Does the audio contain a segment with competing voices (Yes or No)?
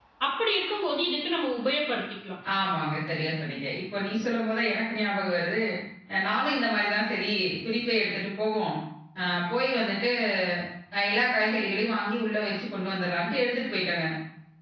No